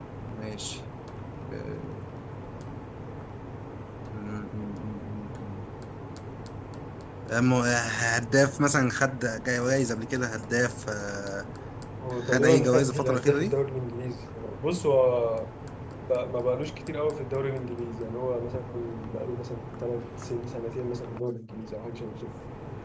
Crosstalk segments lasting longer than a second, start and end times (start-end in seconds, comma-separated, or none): 12.2-13.5